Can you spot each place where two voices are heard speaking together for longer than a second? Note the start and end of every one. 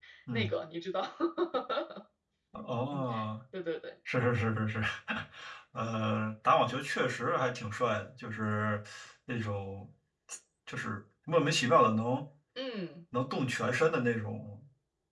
none

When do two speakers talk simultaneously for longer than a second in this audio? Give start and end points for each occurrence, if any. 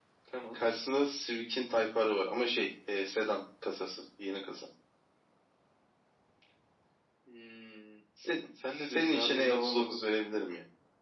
8.7-10.0

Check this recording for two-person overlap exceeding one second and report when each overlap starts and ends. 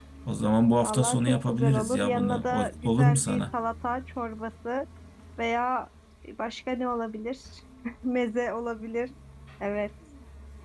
0.8-3.4

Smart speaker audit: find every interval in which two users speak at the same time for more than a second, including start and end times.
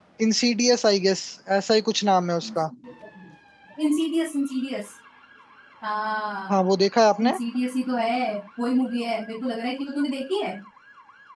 none

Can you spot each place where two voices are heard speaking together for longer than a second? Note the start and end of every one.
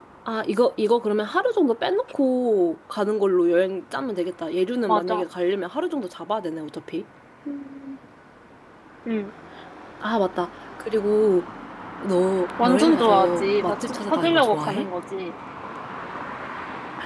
12.6-14.8

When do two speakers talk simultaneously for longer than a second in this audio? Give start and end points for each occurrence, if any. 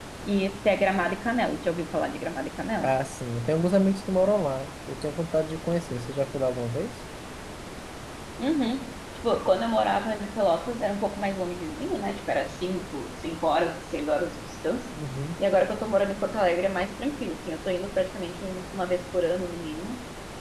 none

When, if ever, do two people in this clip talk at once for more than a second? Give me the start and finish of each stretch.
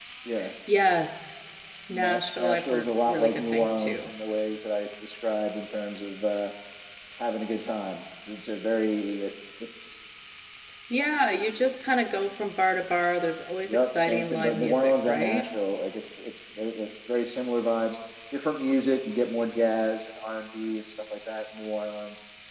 1.9-4.1, 13.7-15.5

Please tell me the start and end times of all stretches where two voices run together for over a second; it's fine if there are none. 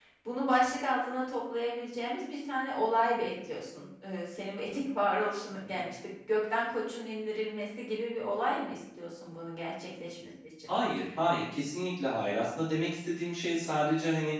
none

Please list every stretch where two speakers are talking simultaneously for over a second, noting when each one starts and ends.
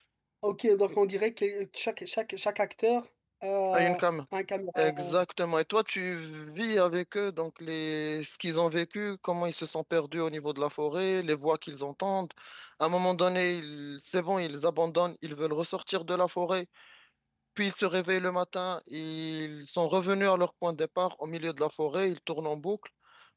none

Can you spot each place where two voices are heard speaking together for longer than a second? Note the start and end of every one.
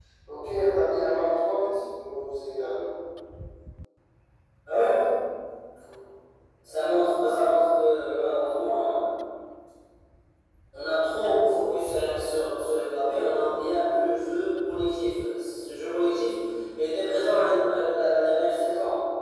none

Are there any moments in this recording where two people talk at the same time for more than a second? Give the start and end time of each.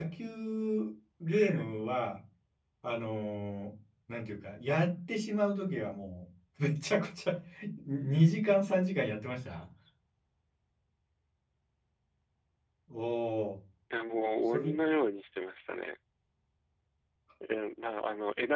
none

